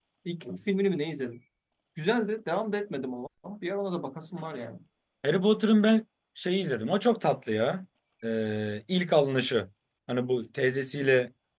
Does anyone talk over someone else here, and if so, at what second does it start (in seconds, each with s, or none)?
none